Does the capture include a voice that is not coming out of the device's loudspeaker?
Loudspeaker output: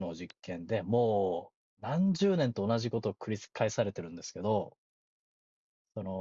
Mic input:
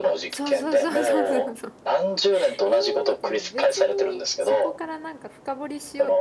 Yes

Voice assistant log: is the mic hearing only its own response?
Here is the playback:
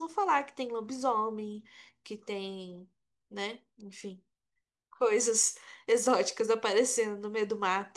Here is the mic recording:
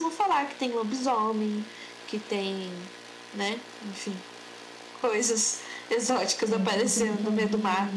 No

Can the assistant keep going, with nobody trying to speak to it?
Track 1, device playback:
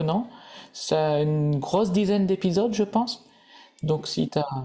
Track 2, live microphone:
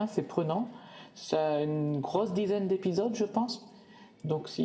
Yes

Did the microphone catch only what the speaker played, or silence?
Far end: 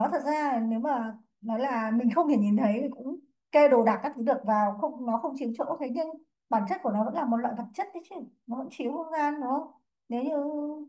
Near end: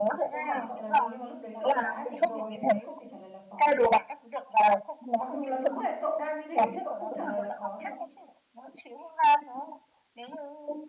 No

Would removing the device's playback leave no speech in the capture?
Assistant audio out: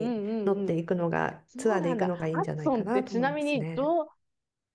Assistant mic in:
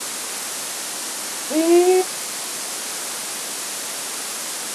No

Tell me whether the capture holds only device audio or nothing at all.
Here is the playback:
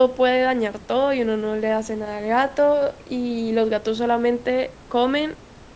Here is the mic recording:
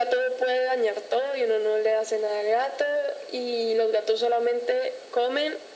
Yes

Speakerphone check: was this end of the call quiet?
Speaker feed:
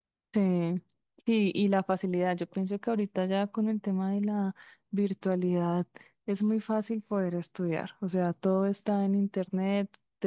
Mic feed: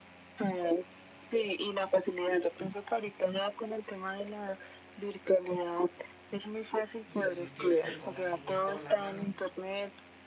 No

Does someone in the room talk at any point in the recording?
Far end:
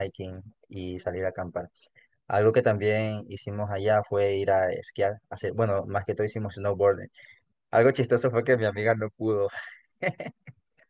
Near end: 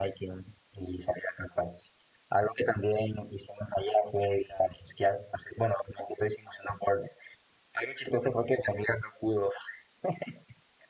No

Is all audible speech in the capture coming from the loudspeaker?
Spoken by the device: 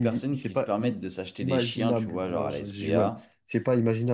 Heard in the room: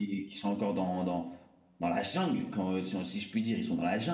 No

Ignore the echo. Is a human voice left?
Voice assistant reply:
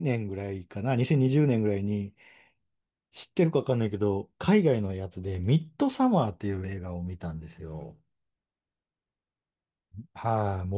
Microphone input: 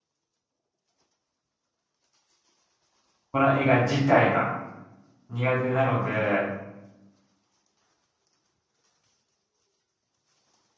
Yes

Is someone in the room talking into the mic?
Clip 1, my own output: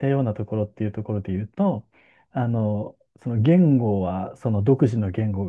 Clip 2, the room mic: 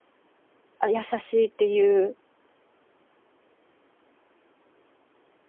Yes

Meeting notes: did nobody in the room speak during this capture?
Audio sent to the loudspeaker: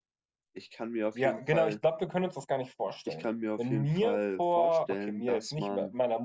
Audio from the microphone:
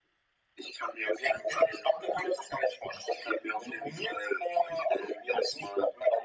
Yes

